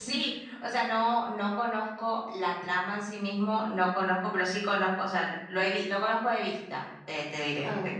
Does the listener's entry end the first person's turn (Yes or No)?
Yes